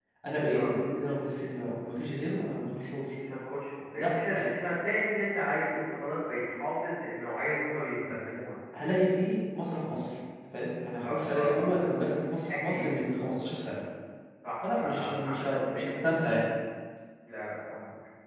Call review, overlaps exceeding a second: present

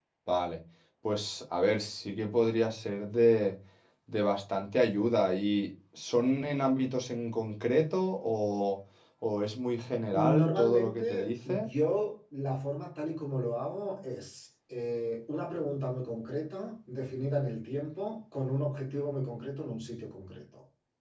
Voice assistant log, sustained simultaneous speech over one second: present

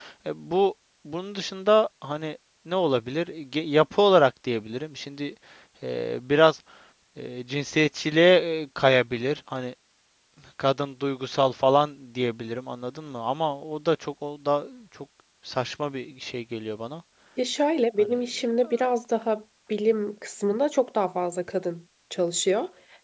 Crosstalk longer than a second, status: none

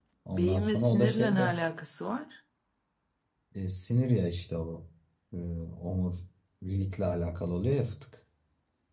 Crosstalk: present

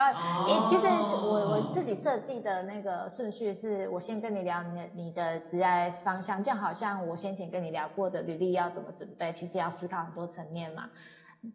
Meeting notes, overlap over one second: present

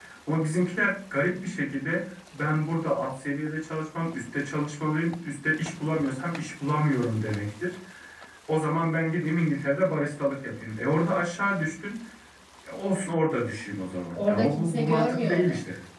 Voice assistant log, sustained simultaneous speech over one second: present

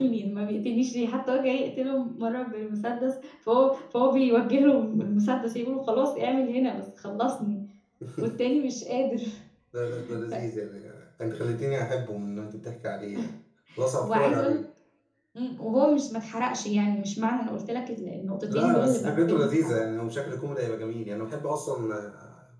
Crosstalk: present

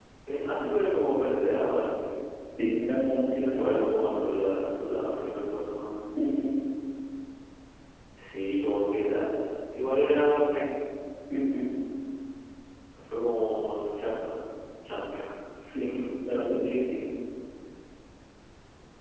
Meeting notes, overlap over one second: none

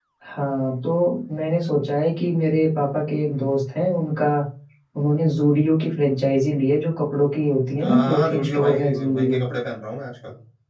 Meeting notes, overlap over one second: present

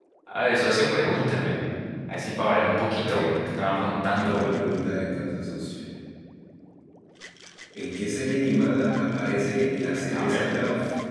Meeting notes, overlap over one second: none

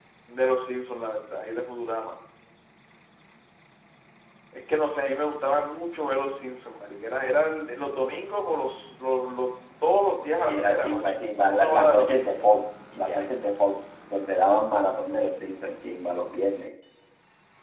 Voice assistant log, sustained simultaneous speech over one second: present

